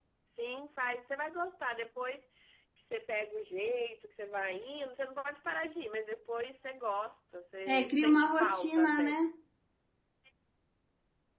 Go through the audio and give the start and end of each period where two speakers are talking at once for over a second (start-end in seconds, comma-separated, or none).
7.7-9.2